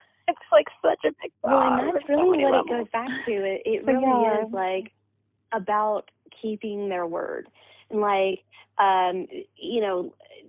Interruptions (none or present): present